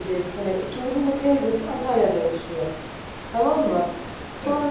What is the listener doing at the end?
listening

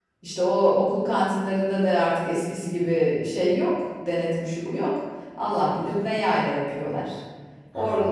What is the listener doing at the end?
listening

